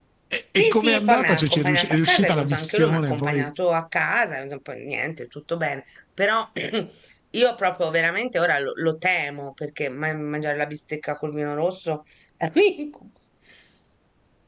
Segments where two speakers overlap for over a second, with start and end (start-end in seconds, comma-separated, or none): 0.6-3.5